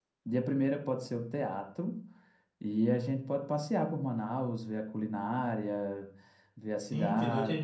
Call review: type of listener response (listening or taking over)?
taking over